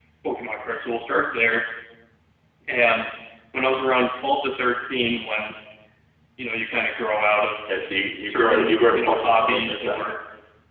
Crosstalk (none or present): present